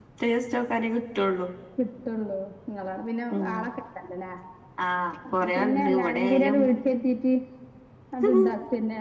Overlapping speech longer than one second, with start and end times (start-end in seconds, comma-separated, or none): 5.4-6.7